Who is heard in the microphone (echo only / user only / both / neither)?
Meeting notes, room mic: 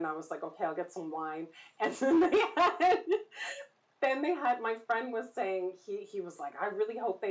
echo only